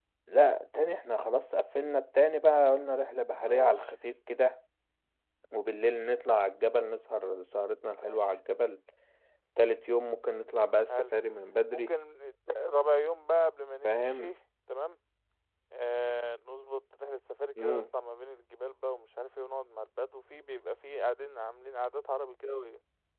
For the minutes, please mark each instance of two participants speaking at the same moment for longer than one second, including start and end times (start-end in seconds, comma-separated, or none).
none